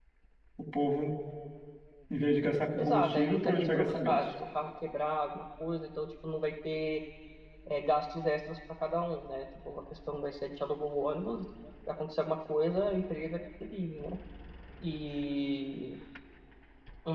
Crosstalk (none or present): present